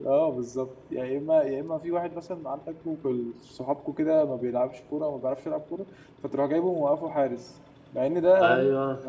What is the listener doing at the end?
listening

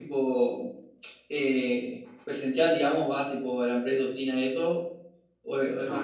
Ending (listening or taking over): taking over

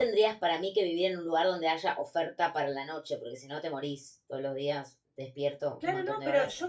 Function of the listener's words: taking over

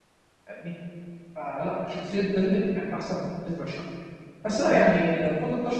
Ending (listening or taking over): listening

